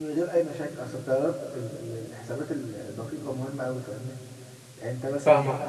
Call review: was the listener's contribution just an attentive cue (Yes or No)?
No